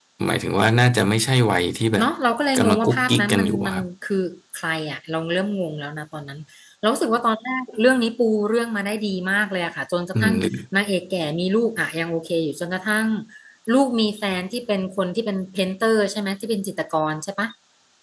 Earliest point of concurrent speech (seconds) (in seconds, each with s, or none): 2.6 s